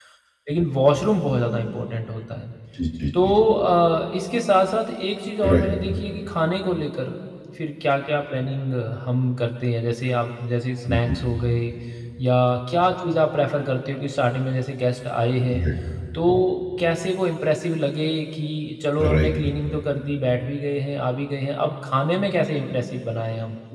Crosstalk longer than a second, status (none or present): none